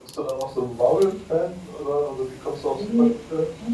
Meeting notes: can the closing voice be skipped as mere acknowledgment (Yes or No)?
No